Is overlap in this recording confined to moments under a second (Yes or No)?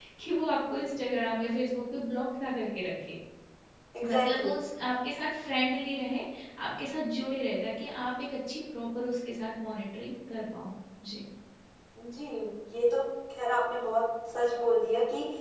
Yes